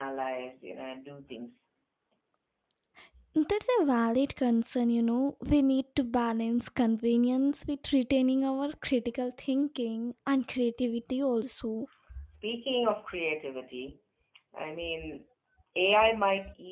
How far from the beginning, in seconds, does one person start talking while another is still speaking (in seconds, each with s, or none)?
none